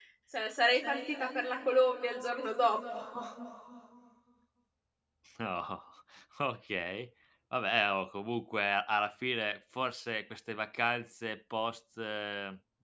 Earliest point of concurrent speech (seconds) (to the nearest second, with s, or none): none